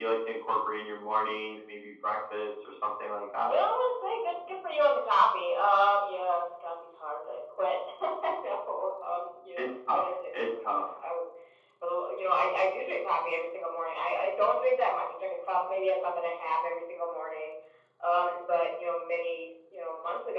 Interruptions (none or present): present